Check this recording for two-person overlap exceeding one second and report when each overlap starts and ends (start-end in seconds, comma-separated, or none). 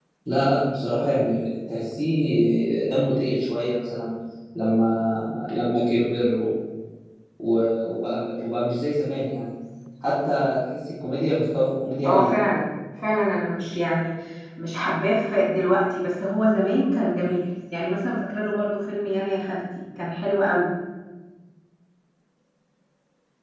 none